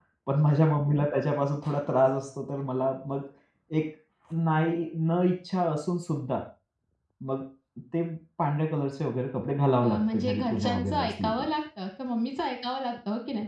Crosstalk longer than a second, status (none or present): present